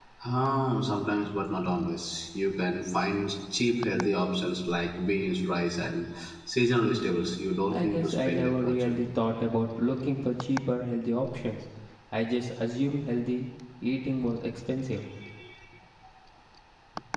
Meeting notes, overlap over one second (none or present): present